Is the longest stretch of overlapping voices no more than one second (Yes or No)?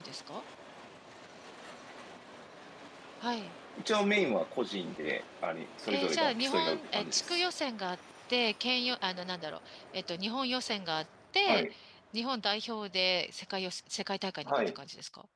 No